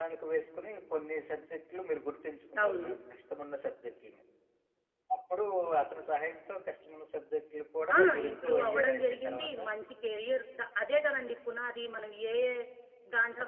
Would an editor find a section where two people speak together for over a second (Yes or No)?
Yes